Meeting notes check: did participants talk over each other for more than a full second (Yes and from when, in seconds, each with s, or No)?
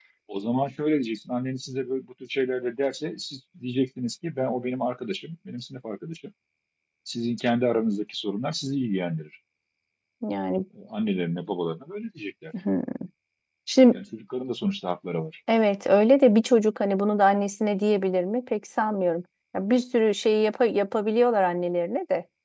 No